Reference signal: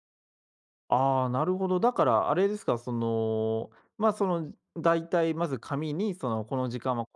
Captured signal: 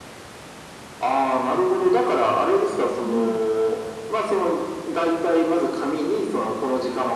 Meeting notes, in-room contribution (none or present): present